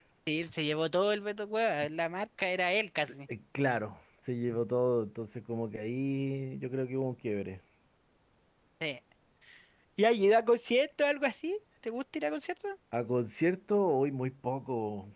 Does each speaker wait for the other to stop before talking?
Yes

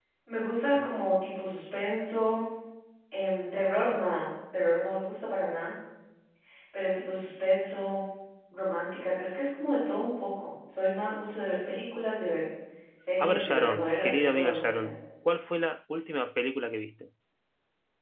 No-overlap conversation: No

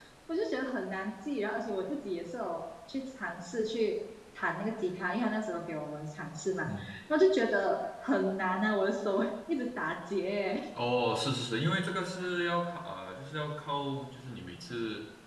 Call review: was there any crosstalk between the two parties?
No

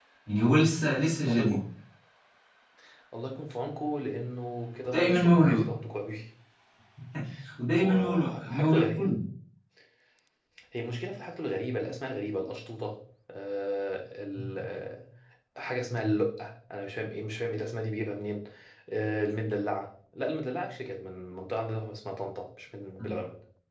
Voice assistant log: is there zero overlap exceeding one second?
No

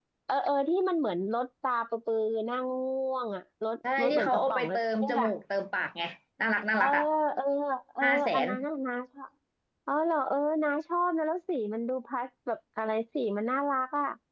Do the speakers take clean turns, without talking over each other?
No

